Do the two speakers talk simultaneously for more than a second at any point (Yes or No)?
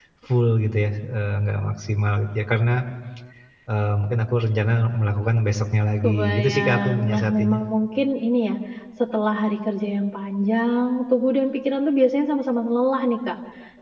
Yes